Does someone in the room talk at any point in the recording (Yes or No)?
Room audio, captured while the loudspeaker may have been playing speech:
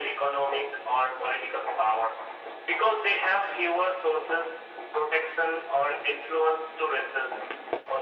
No